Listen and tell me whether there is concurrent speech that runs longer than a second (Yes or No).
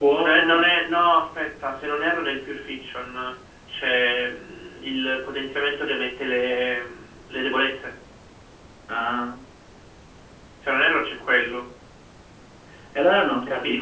No